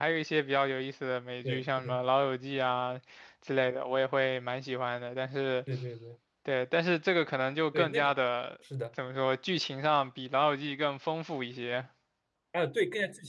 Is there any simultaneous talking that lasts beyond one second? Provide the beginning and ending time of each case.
none

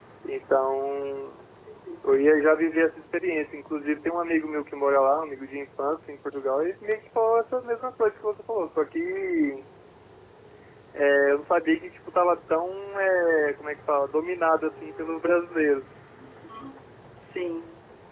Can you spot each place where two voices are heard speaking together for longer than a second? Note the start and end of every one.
none

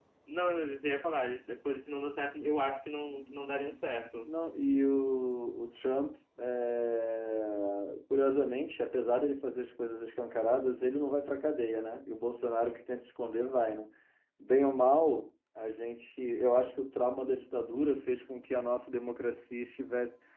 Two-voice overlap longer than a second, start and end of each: none

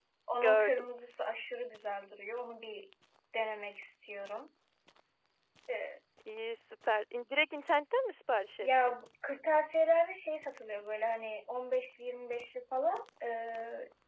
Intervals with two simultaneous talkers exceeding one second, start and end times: none

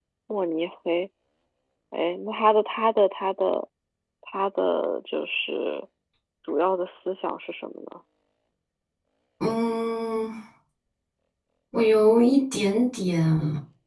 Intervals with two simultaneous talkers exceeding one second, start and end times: none

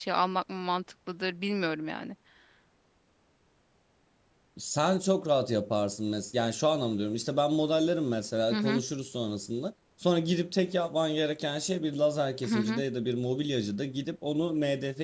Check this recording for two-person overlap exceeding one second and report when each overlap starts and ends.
none

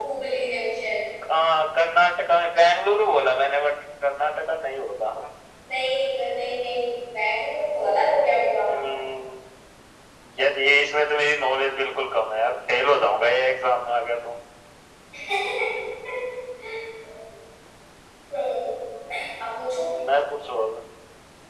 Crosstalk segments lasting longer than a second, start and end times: none

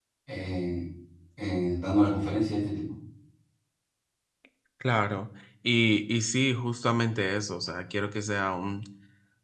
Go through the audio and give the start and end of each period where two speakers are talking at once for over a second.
none

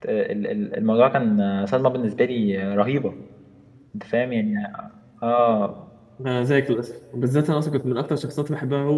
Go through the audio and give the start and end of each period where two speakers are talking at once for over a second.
none

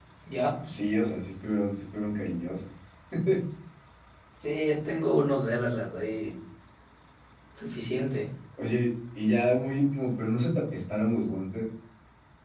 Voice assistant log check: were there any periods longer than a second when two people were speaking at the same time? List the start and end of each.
none

